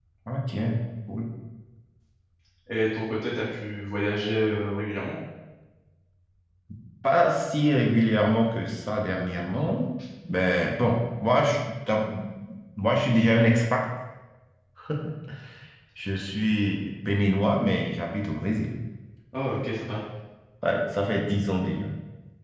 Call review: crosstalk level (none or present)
none